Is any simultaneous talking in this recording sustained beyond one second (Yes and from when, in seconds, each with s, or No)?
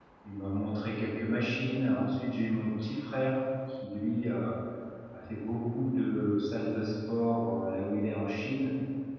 No